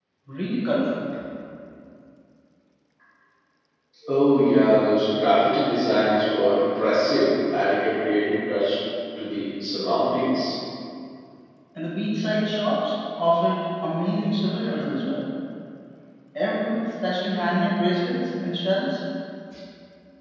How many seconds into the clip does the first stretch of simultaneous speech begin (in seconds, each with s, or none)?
none